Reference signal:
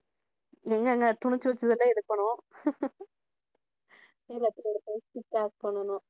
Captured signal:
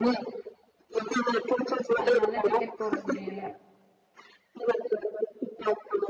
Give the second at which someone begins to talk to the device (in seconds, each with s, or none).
2.0 s